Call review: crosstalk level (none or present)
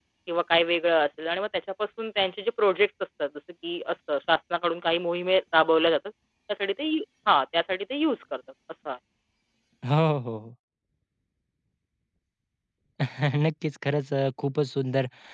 none